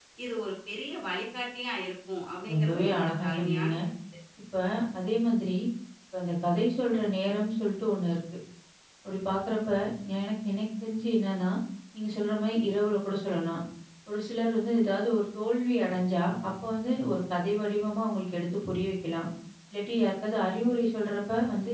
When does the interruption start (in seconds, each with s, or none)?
2.5 s